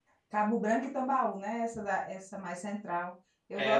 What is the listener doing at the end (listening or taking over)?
taking over